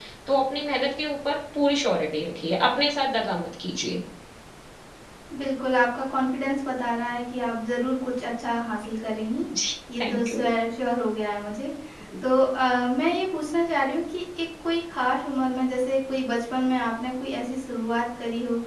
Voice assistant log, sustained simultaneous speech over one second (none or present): none